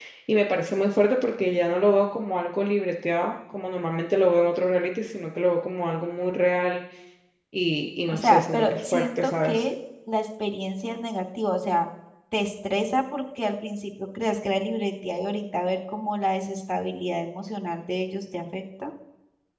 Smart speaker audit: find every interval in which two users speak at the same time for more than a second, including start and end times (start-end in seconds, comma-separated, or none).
8.1-9.6